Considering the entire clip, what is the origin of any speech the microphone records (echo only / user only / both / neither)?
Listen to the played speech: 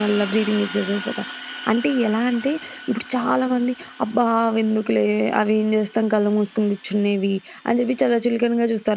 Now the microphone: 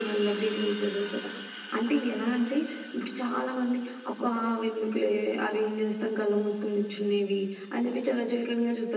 echo only